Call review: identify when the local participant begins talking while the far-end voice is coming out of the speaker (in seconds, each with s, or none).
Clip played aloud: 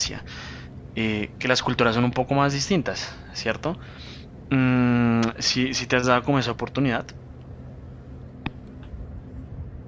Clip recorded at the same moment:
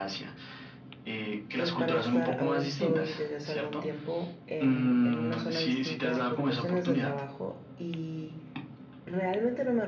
1.5 s